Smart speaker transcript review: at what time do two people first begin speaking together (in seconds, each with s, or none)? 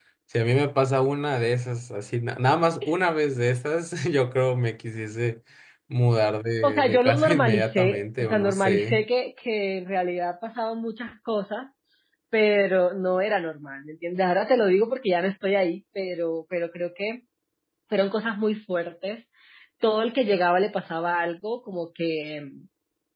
6.6 s